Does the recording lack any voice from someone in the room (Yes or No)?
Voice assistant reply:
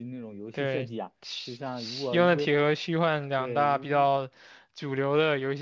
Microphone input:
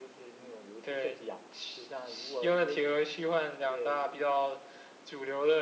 Yes